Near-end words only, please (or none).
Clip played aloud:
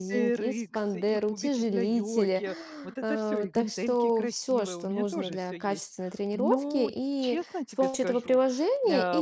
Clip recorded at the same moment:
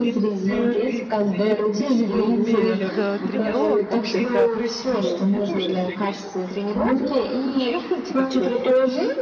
но без, э, тренировок, в общем-то,